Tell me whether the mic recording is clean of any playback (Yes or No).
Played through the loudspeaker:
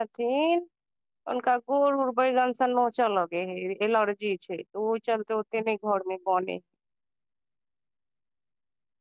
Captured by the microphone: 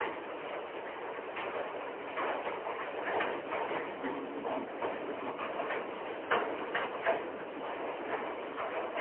Yes